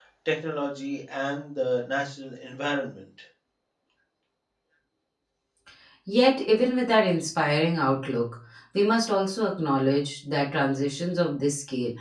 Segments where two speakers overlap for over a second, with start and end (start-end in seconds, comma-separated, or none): none